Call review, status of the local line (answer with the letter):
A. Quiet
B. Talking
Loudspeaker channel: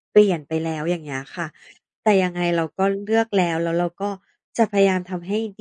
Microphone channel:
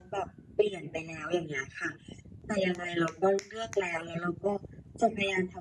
A